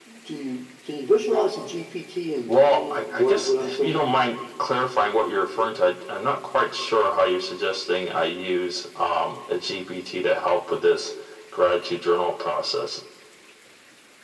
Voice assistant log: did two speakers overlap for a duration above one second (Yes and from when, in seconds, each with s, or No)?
Yes, from 2.5 s